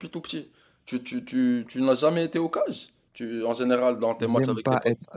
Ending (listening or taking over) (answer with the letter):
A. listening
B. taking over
B